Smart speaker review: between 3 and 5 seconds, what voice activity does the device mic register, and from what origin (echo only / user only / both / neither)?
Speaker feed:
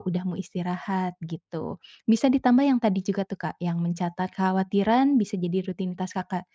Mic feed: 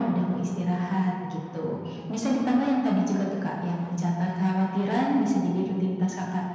echo only